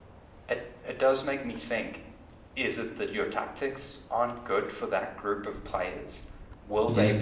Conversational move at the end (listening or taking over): listening